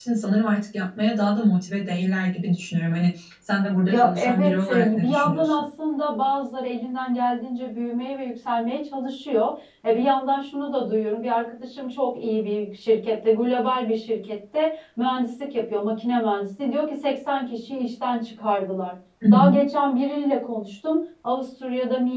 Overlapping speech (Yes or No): Yes